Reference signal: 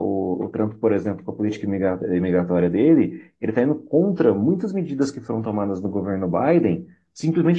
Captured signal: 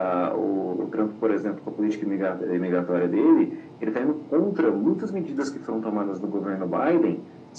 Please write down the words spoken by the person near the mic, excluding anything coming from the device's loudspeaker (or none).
none